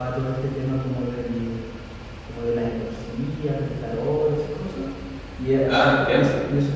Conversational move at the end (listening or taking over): listening